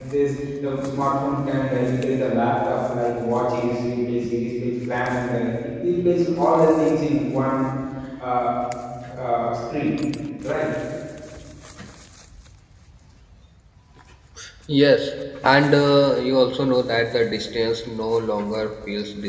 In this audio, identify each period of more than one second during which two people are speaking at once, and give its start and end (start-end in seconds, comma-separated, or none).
none